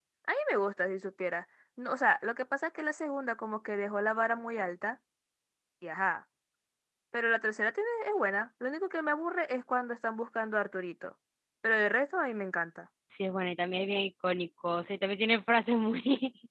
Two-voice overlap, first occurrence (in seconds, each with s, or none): none